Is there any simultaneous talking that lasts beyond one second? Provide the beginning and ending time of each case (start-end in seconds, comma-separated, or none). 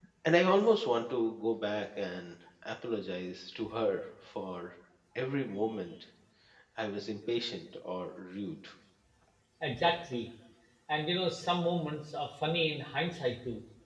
none